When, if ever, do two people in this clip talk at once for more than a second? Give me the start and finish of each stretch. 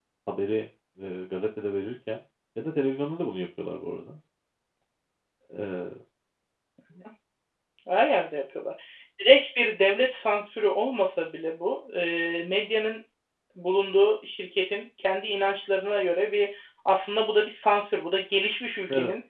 none

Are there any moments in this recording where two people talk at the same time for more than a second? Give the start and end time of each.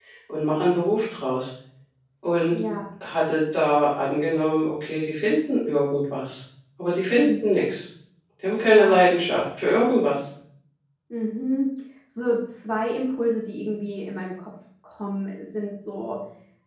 none

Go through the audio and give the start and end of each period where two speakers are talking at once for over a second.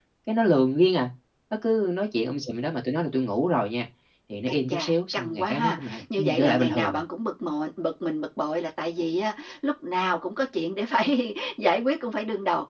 4.5-7.0

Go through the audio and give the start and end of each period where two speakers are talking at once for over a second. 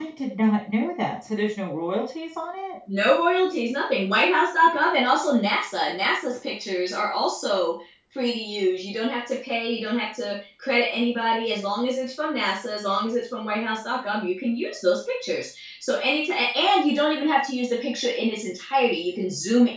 none

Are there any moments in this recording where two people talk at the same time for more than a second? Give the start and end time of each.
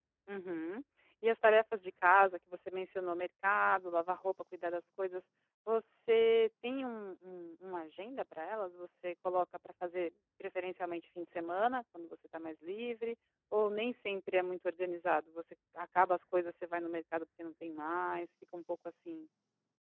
none

